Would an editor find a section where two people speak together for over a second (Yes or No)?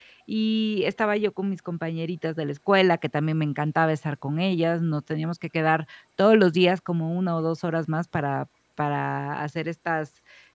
No